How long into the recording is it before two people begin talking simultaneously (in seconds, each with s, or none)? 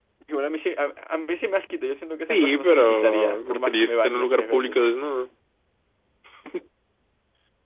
2.3 s